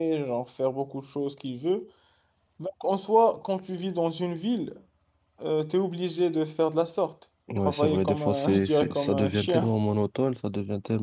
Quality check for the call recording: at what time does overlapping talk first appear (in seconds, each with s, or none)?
7.5 s